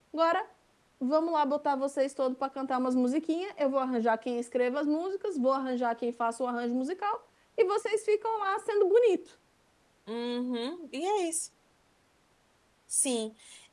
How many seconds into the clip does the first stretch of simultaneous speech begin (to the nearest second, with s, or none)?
none